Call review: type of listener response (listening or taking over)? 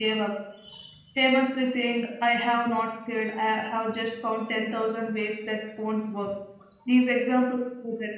listening